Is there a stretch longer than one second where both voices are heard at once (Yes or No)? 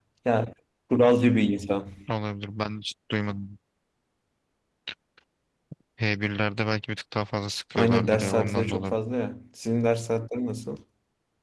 Yes